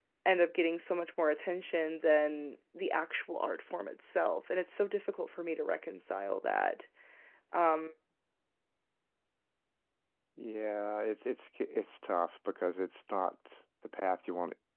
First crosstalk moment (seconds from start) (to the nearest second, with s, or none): none